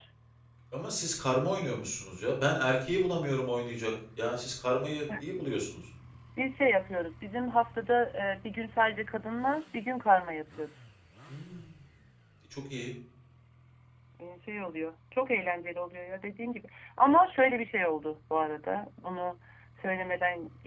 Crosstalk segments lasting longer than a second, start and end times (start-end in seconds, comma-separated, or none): none